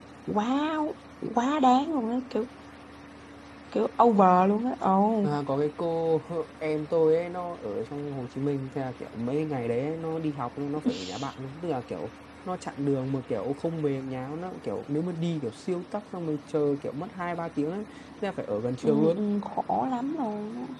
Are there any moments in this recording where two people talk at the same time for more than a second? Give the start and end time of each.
none

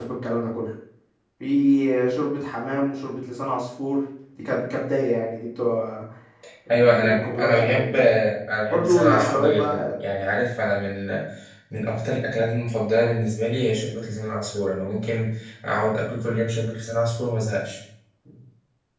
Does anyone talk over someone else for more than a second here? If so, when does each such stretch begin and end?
6.8-8.0, 8.7-10.0

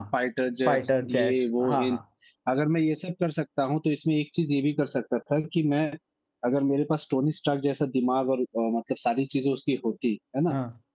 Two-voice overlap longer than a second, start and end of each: 0.7-2.0

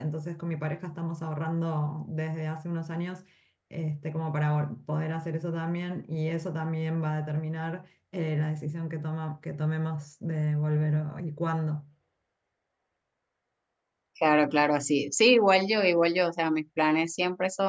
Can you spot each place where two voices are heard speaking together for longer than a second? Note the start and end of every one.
none

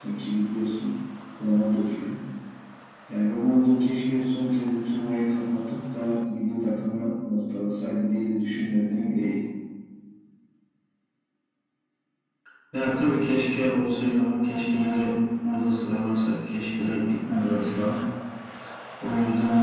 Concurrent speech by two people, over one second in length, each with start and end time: none

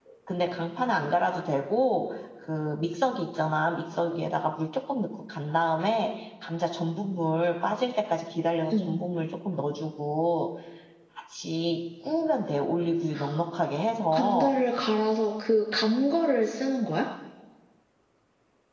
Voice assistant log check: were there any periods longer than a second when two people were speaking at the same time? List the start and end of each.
none

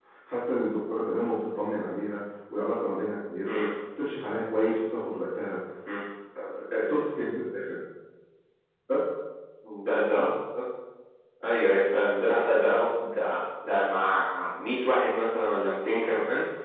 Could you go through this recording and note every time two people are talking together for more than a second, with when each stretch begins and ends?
none

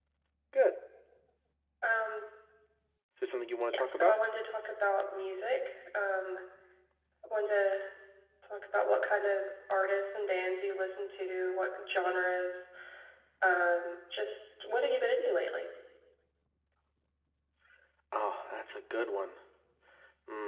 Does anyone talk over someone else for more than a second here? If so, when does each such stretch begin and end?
none

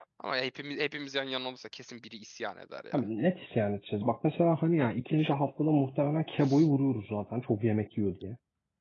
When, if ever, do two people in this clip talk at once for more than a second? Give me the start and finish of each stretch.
none

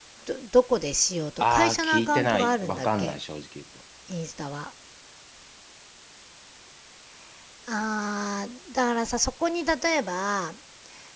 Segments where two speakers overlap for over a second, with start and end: 1.4-3.1

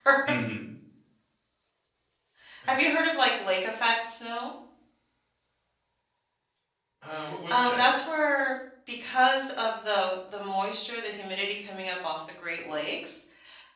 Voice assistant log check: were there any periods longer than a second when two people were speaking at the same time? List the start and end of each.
none

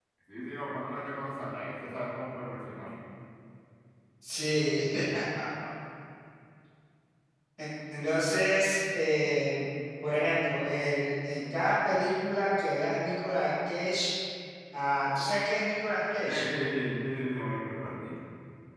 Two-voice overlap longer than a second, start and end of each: none

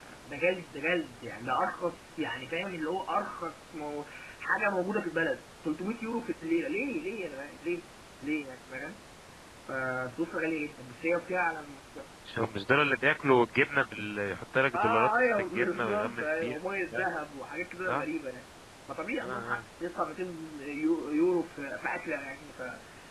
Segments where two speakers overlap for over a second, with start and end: 14.7-16.6

